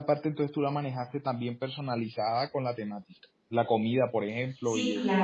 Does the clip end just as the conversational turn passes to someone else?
Yes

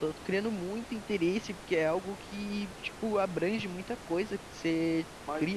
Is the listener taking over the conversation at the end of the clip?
Yes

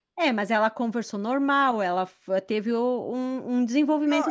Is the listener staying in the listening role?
No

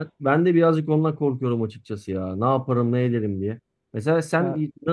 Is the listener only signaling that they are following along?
Yes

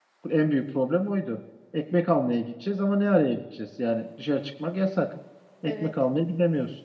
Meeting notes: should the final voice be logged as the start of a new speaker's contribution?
No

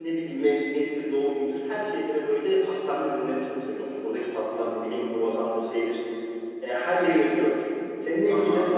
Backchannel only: Yes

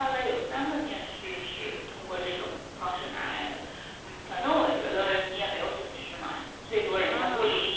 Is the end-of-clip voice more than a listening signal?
No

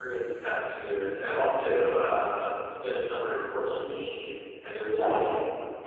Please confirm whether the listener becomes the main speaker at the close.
Yes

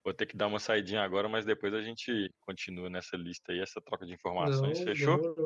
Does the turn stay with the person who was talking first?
No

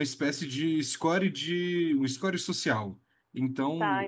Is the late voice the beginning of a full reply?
No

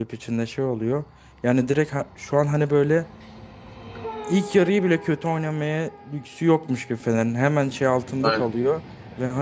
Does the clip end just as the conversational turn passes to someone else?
No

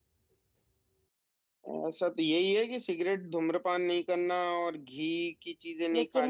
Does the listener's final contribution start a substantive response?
No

